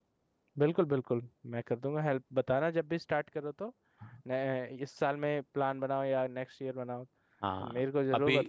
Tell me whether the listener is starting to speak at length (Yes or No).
Yes